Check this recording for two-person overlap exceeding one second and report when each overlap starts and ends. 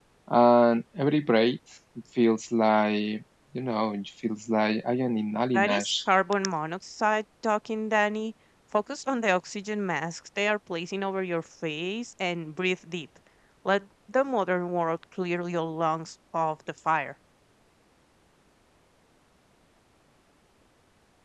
none

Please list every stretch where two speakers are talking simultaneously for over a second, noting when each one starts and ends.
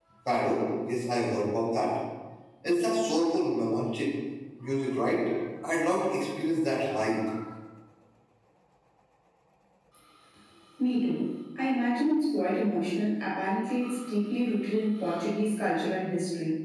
none

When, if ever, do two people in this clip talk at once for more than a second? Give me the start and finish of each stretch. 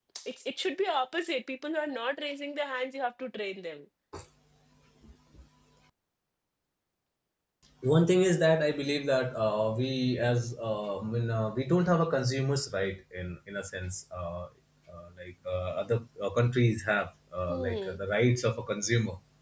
none

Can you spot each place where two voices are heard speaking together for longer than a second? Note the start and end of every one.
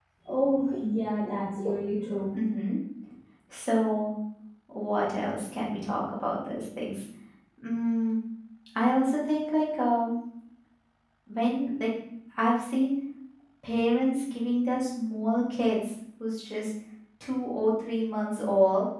none

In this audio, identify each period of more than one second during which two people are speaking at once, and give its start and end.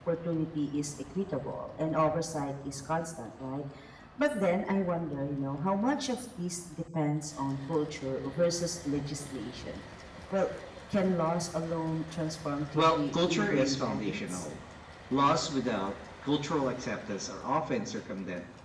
12.8-14.5

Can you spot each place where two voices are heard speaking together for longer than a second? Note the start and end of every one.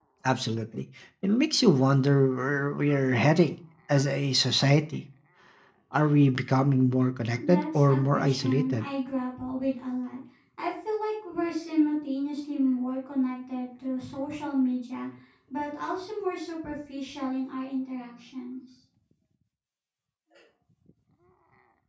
7.5-8.9

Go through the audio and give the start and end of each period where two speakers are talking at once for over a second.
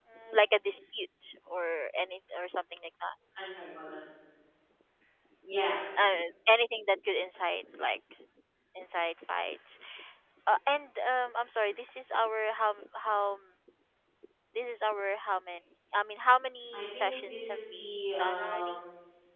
16.7-18.8

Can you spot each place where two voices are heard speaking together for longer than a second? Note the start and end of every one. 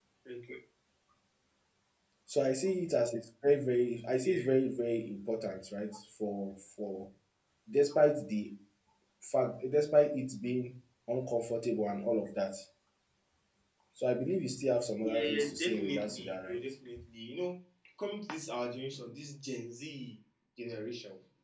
15.0-16.6

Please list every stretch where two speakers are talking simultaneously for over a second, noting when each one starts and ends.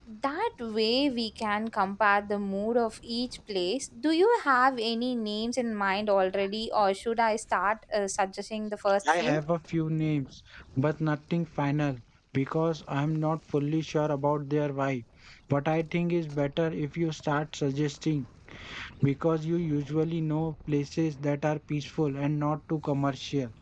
none

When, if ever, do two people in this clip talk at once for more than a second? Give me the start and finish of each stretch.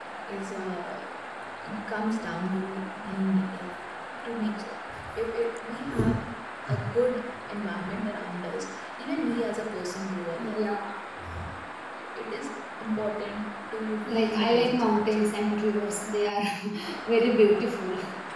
14.0-15.2

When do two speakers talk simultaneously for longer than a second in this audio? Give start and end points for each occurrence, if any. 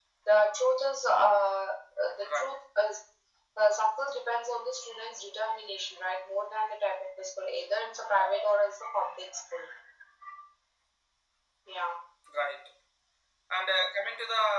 none

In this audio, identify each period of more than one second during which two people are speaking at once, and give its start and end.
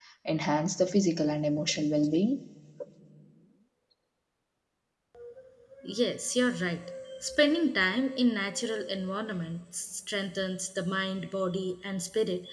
none

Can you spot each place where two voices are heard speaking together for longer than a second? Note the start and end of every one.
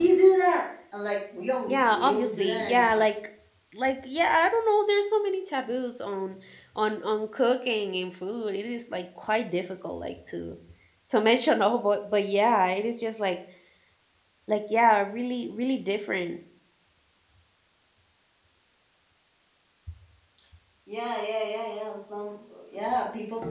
1.7-3.0

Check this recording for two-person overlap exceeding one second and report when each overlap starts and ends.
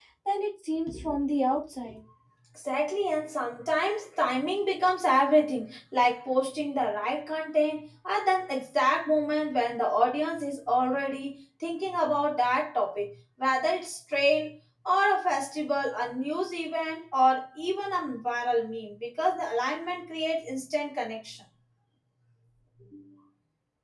none

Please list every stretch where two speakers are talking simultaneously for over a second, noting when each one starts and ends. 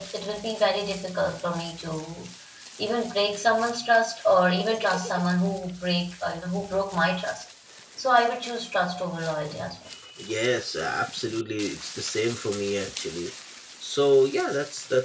none

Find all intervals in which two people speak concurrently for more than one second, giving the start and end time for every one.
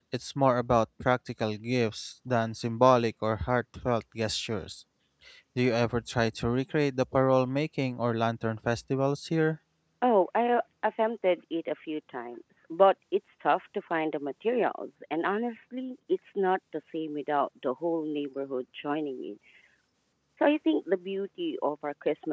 none

